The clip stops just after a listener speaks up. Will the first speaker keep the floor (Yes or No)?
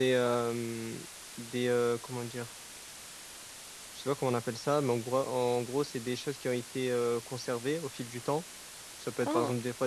Yes